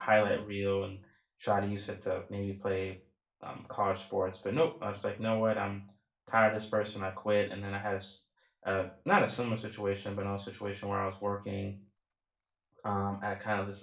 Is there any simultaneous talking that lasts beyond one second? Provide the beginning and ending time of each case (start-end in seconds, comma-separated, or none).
none